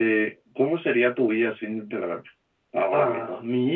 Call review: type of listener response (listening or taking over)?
taking over